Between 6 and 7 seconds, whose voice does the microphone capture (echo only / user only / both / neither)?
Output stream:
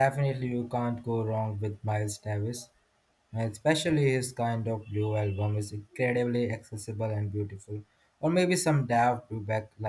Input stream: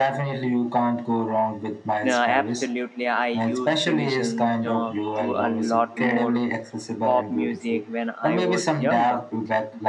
both